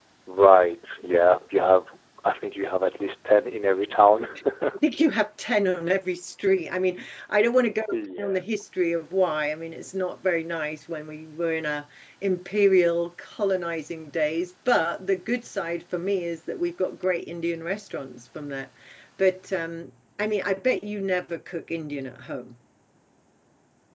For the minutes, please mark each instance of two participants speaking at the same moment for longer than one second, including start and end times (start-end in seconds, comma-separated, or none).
none